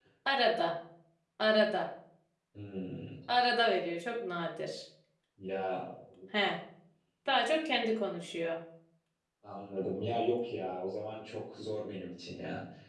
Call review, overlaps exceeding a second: none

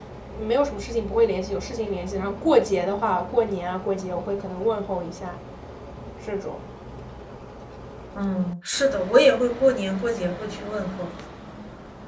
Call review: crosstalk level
none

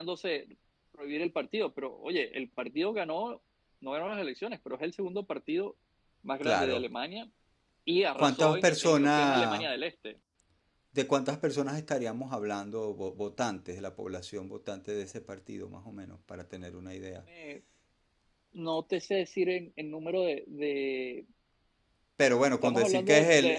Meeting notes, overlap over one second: present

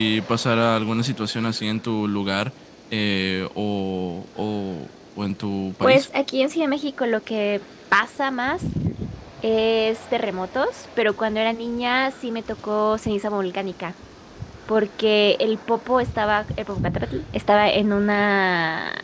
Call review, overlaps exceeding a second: none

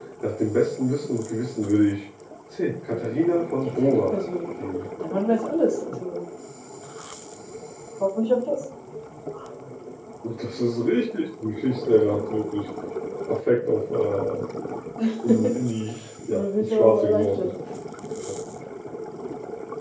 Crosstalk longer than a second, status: present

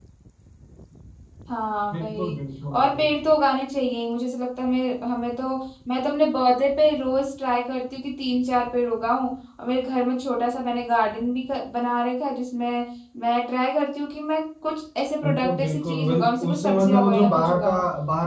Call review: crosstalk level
present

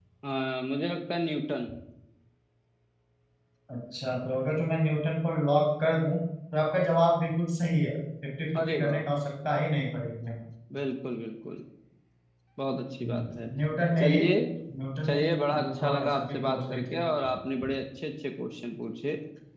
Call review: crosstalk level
present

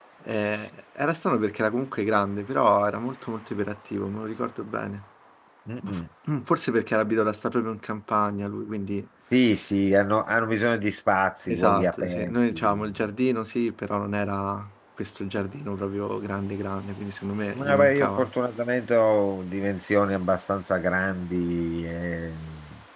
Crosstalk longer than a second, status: present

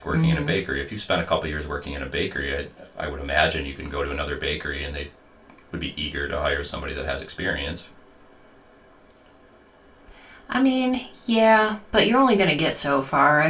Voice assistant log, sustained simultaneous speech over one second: none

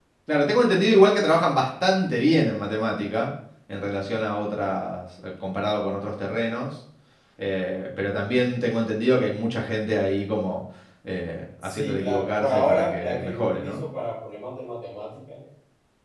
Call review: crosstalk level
present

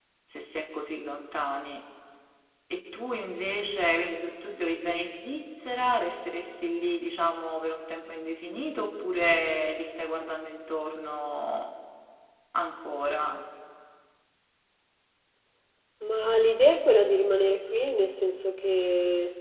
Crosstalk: none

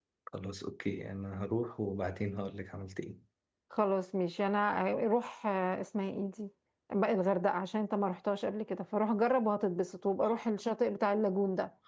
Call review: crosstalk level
none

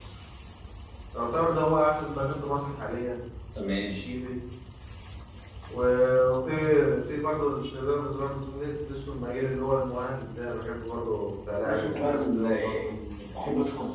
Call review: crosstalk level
present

